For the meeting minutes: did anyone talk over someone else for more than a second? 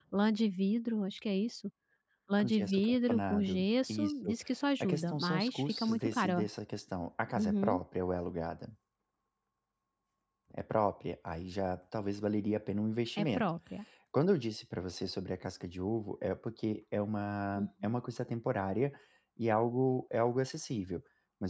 Yes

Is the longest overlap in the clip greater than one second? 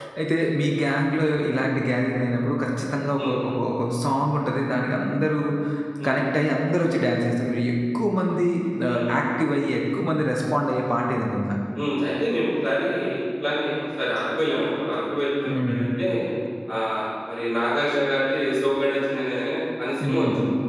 No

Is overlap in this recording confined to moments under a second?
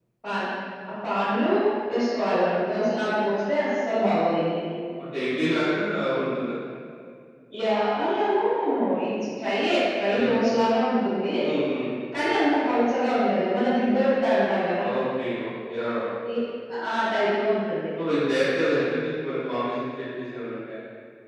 Yes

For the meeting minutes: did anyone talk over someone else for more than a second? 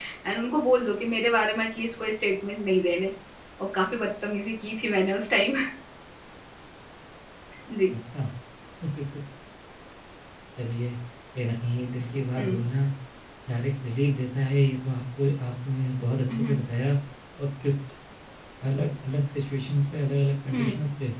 No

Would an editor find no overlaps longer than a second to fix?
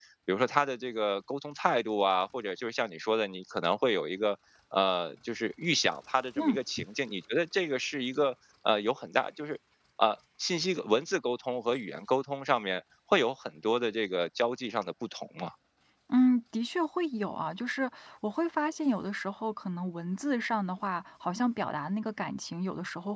Yes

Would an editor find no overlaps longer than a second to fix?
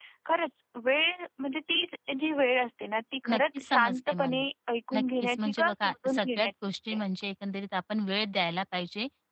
No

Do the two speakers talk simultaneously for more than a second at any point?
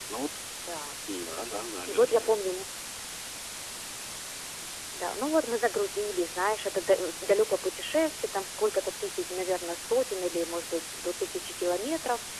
No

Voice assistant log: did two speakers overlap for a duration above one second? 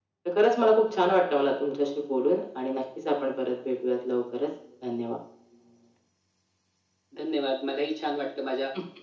No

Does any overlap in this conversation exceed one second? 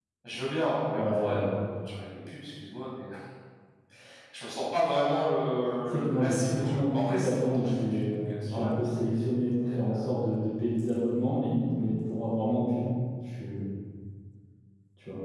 Yes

